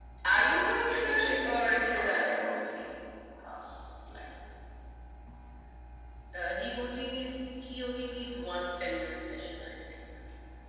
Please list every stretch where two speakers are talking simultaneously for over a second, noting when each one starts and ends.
0.9-2.5

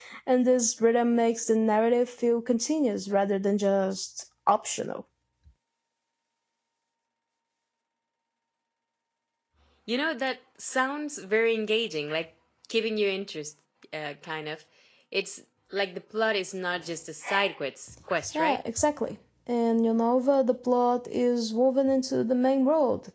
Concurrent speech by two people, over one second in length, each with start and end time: none

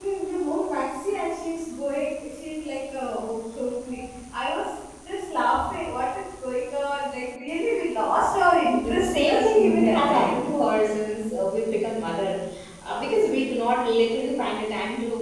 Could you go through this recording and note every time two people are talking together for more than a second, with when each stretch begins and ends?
8.8-10.3

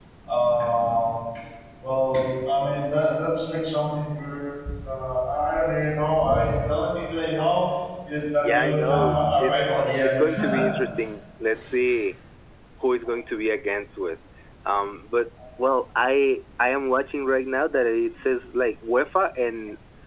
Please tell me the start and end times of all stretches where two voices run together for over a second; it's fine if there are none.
8.4-10.7

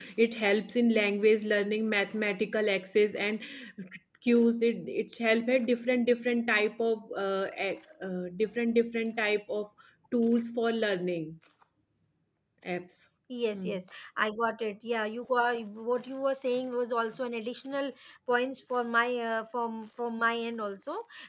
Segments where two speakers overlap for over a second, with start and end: none

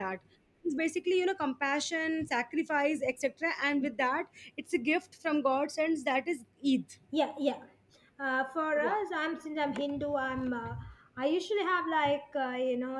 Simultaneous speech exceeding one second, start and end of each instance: none

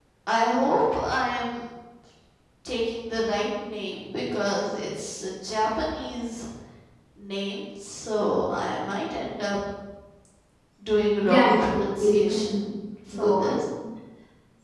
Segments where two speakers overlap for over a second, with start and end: 11.2-12.6

